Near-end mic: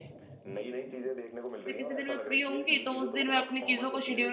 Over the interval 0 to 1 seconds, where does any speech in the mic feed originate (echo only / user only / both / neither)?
echo only